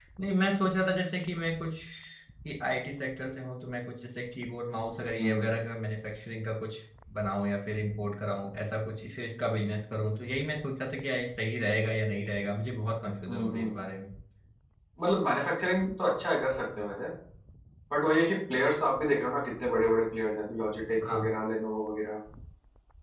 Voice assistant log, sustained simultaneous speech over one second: none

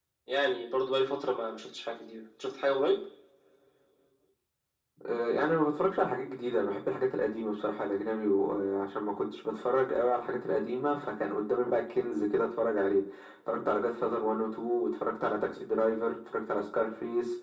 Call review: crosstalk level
none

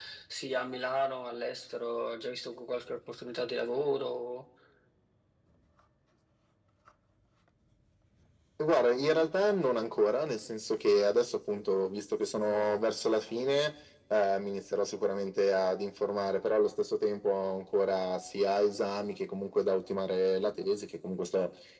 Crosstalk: none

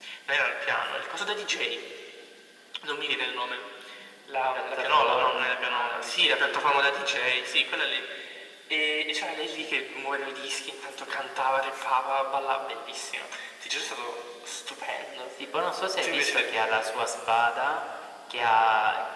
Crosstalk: present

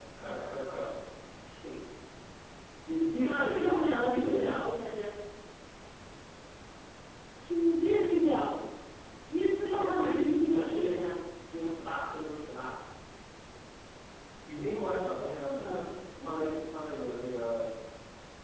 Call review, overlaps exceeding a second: present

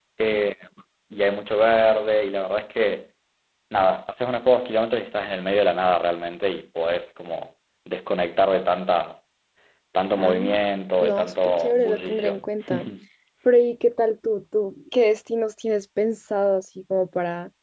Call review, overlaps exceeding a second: present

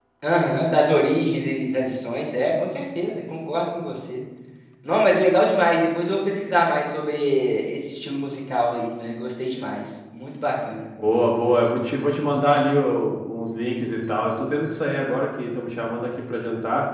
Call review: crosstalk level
none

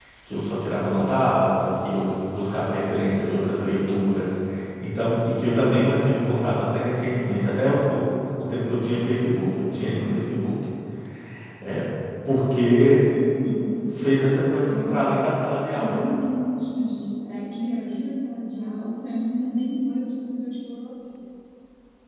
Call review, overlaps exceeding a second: none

